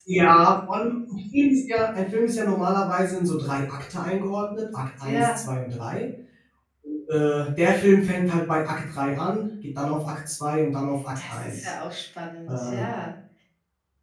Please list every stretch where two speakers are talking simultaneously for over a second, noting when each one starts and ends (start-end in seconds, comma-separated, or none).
none